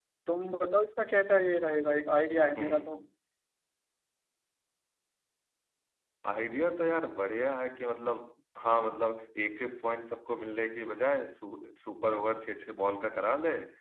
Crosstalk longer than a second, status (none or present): none